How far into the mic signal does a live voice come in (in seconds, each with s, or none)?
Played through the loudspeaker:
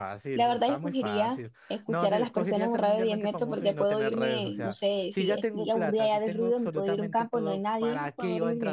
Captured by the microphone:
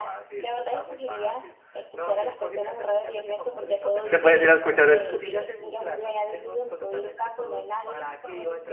4.1 s